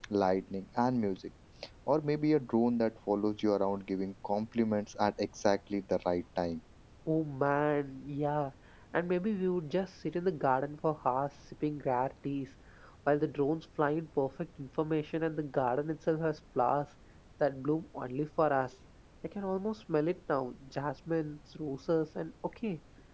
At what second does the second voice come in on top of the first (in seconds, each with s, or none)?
none